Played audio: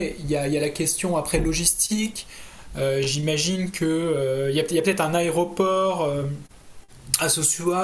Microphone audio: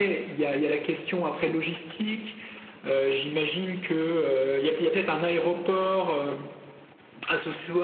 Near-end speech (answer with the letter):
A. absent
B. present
A